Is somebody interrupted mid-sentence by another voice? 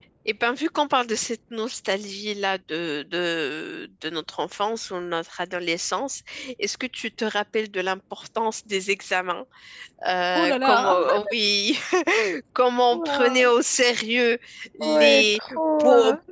Yes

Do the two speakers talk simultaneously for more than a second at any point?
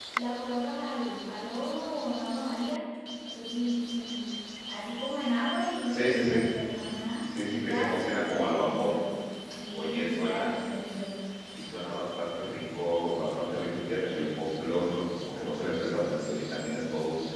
Yes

